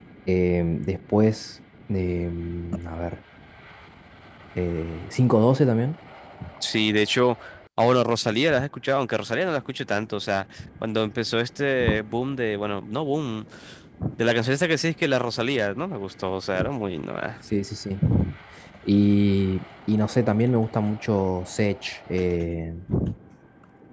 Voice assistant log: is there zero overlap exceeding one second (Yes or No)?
Yes